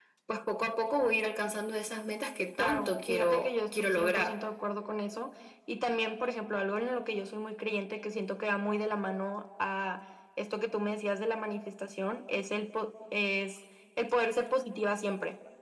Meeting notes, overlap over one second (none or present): present